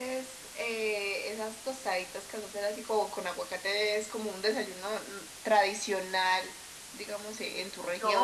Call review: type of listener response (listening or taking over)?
taking over